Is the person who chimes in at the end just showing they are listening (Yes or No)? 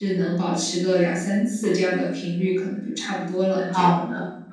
No